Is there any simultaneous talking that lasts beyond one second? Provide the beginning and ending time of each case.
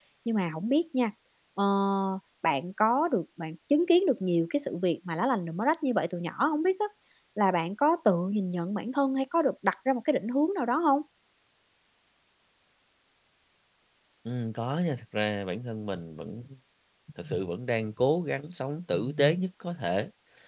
none

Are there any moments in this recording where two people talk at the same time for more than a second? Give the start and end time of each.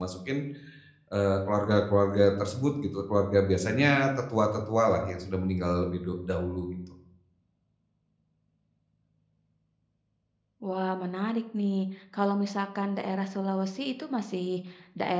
none

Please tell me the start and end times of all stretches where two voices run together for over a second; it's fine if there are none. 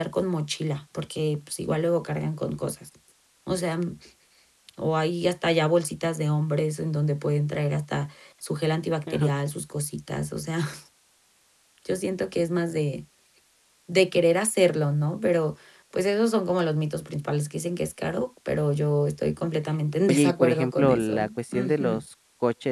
20.1-22.0

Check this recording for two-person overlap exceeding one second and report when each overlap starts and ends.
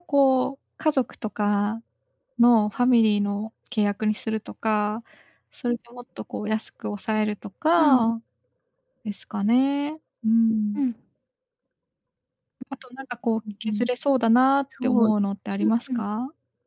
none

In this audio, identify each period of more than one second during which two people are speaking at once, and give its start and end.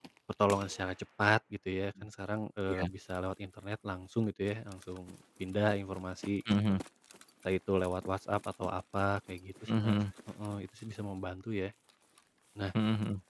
none

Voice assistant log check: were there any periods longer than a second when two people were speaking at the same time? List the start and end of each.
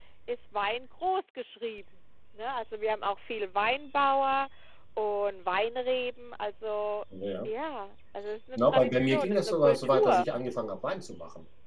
8.6-10.2

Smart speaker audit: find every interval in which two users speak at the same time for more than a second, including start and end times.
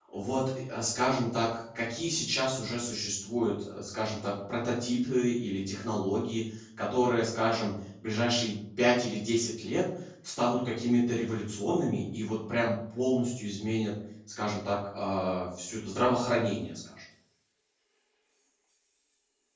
none

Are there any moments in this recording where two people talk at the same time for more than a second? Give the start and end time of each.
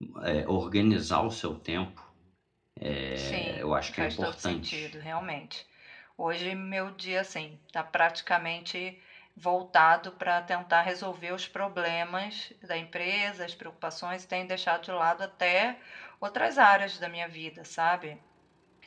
3.1-4.9

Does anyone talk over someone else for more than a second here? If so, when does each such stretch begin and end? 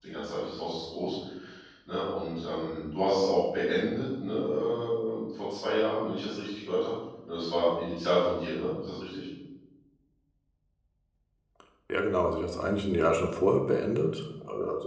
none

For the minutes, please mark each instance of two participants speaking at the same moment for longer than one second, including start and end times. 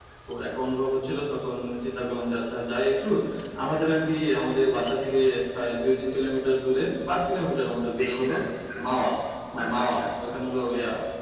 none

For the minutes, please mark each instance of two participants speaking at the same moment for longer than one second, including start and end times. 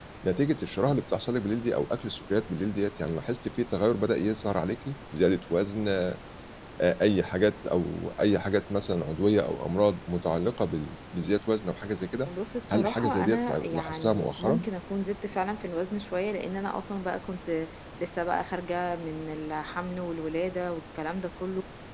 12.7-14.6

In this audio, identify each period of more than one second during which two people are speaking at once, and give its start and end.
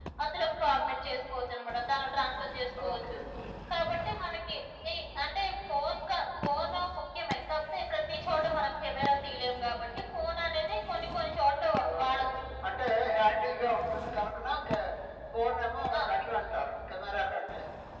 none

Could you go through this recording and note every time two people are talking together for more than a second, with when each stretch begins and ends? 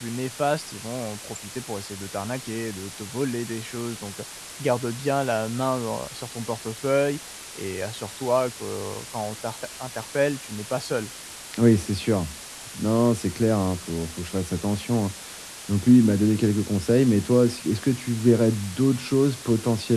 none

